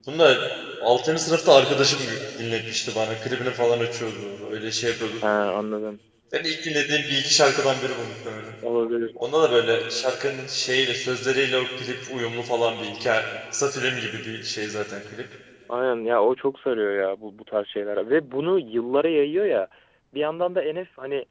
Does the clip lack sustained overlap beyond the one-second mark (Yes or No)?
Yes